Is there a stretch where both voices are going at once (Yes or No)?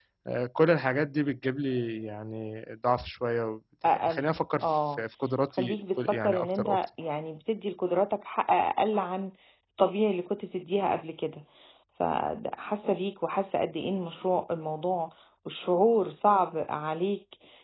Yes